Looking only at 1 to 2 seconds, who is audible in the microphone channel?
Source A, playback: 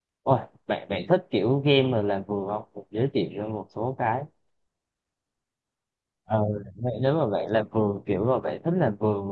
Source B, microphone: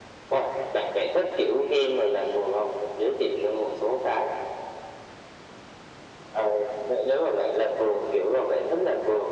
echo only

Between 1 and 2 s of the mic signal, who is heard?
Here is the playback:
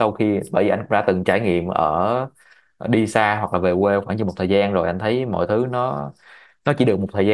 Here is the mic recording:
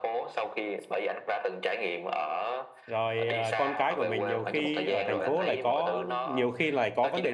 echo only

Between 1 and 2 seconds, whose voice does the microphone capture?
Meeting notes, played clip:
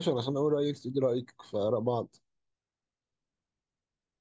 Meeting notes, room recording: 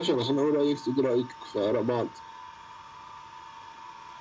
echo only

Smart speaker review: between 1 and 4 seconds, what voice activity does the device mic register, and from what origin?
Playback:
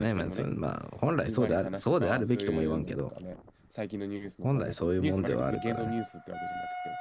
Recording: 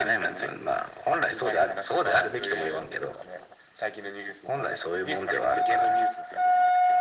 echo only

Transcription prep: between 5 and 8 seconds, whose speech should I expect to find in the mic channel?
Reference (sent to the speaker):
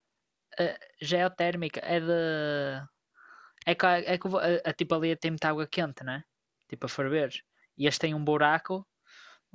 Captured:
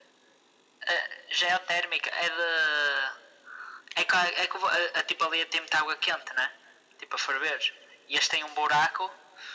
echo only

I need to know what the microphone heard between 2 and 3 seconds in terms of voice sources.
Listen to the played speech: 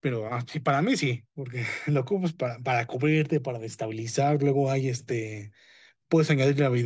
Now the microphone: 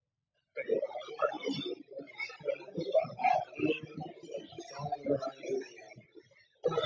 echo only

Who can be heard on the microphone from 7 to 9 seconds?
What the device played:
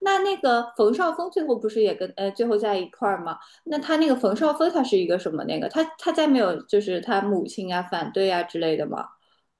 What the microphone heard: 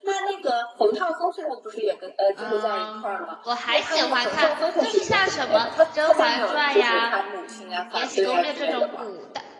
both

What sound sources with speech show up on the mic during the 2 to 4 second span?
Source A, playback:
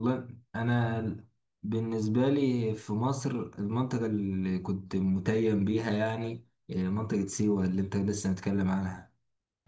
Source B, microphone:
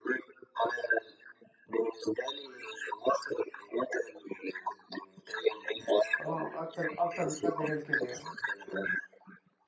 echo only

